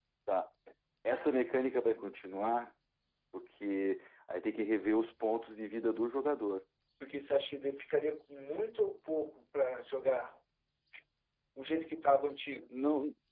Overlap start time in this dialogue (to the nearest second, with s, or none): none